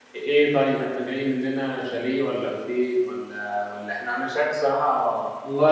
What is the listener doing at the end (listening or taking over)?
taking over